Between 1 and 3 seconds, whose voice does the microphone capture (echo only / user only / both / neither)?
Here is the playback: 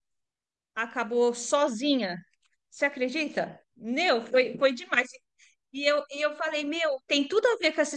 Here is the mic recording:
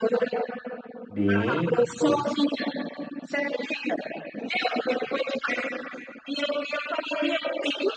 both